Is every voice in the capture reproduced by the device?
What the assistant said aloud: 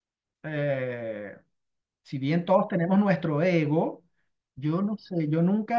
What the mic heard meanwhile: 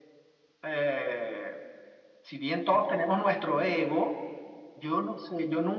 Yes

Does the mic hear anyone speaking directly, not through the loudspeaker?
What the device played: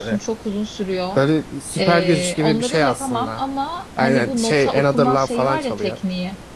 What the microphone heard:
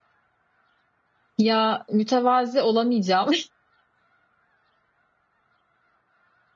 Yes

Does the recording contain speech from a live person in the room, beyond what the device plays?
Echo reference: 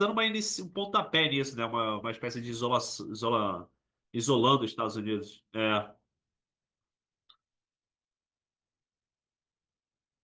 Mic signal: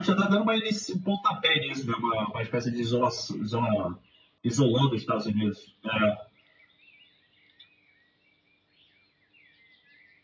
No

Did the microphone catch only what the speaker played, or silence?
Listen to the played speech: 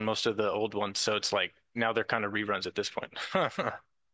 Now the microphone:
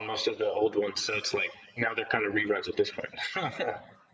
Yes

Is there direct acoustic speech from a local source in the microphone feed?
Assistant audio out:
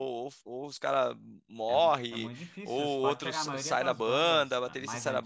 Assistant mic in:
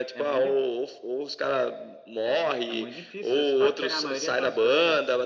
No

